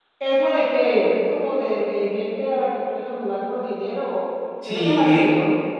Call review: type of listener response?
taking over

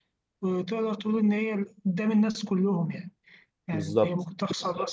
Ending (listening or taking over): listening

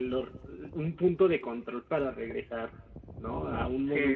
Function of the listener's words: listening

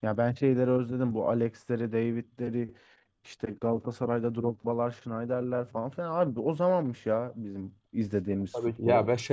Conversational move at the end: taking over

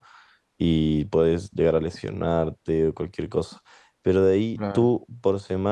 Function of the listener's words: listening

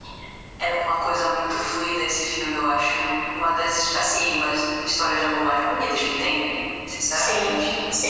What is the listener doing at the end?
taking over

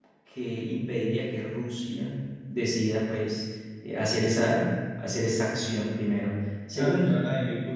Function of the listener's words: taking over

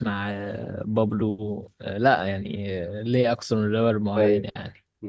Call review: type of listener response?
taking over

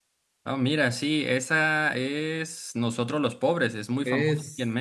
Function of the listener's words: taking over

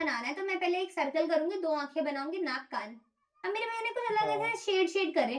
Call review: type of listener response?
listening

